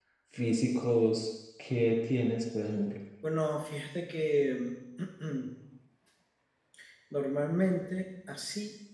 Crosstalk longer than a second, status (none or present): none